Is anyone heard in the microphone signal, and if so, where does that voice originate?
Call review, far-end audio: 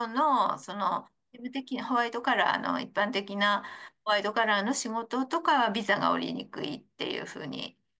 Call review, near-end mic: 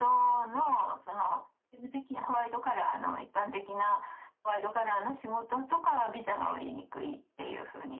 echo only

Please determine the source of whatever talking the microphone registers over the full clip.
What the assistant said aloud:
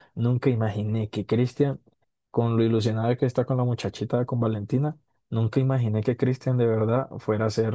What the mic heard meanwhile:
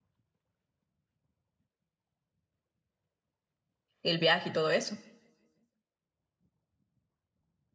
user only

